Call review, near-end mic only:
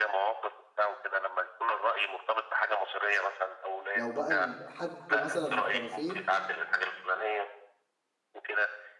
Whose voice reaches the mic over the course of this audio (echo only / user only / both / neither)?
both